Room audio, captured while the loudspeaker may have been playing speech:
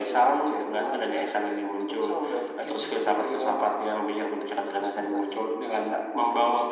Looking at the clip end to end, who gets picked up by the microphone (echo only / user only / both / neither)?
echo only